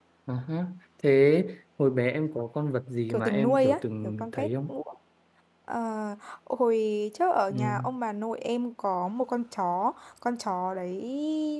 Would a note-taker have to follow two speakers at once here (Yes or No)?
Yes